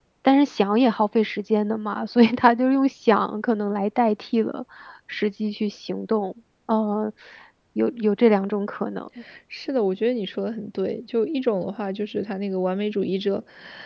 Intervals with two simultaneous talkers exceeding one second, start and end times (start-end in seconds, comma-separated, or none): none